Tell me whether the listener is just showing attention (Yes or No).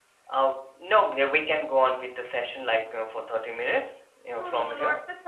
No